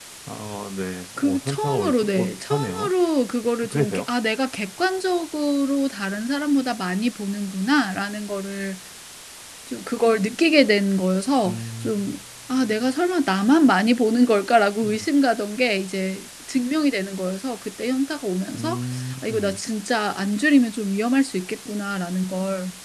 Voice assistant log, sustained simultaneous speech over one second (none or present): present